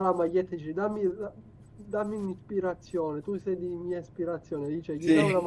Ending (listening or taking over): listening